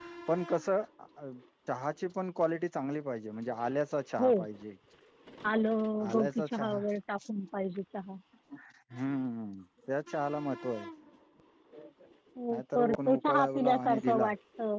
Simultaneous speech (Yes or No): Yes